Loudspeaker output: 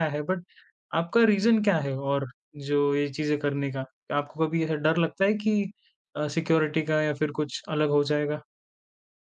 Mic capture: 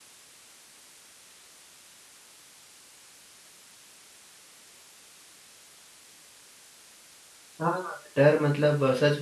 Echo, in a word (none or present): none